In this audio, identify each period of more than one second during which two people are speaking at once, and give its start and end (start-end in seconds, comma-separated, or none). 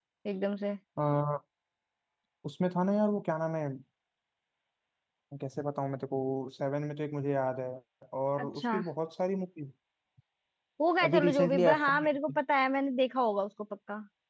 11.0-12.4